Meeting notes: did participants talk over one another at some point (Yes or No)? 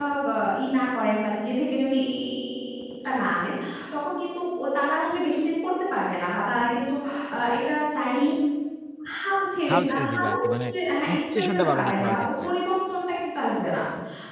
Yes